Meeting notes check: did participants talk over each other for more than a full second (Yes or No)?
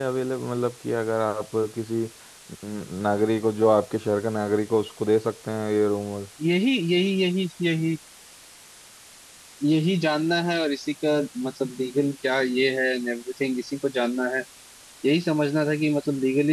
No